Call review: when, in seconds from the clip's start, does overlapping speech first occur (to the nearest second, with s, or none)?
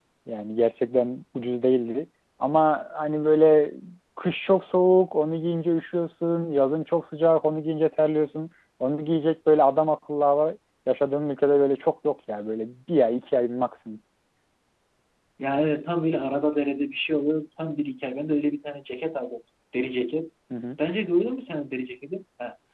none